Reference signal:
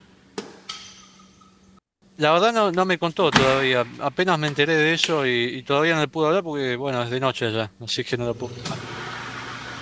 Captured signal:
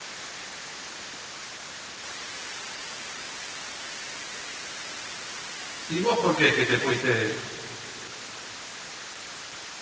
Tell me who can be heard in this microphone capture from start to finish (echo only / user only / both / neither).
user only